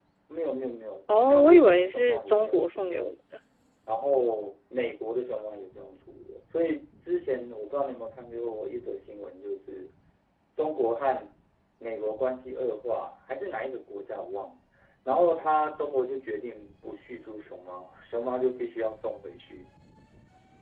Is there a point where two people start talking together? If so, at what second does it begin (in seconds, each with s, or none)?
1.3 s